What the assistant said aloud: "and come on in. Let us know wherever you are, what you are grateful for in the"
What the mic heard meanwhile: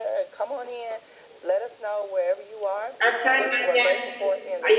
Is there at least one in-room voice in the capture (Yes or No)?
Yes